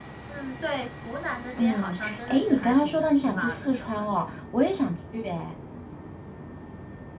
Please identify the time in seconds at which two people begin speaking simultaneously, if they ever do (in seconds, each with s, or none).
1.6 s